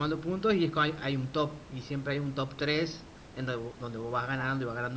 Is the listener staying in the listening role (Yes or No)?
Yes